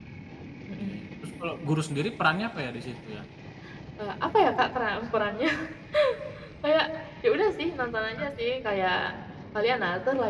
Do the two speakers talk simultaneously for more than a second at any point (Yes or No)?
No